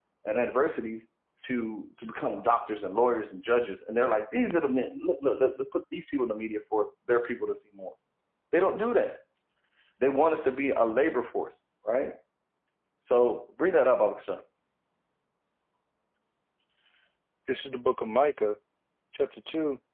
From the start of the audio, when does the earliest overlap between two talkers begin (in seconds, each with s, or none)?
none